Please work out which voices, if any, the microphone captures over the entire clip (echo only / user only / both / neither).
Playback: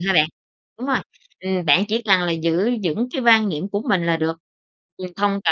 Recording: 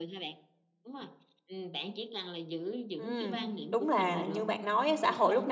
both